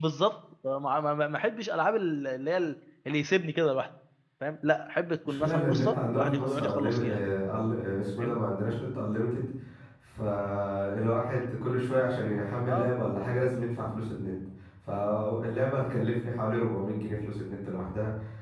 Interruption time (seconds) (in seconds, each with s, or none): 5.3 s